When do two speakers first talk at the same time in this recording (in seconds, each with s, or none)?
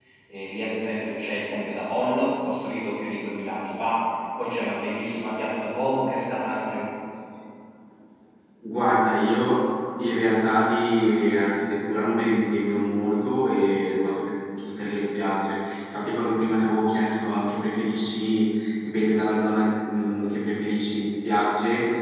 none